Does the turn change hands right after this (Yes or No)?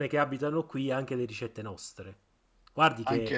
No